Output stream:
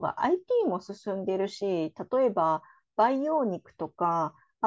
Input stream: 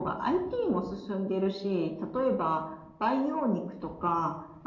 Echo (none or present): present